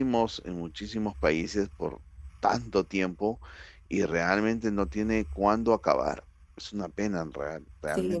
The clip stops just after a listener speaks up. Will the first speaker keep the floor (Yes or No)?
No